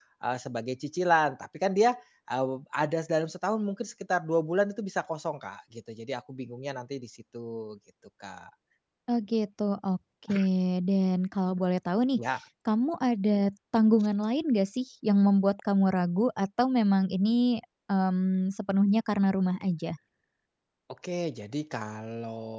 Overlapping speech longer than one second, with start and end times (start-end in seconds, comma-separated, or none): none